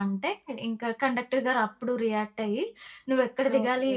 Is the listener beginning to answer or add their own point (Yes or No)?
No